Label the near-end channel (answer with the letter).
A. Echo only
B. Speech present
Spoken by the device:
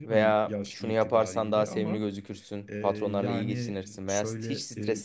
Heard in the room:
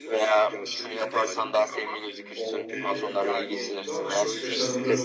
B